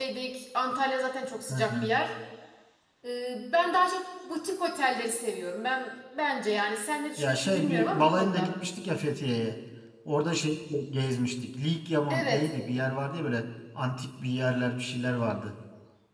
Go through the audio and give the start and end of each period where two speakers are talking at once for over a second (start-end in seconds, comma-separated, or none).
7.2-8.5